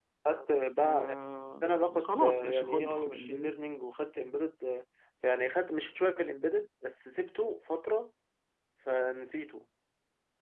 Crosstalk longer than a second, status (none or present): present